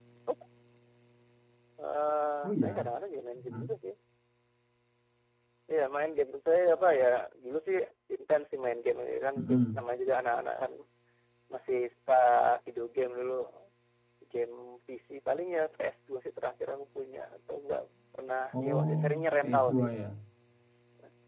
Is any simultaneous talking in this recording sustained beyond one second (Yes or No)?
Yes